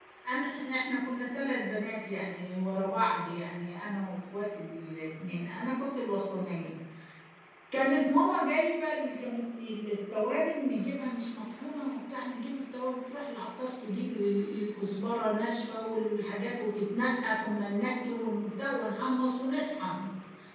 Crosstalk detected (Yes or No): No